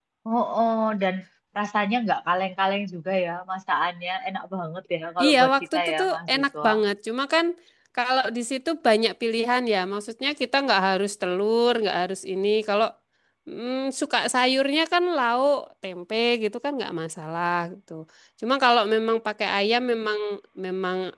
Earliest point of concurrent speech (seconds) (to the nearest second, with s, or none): 5 s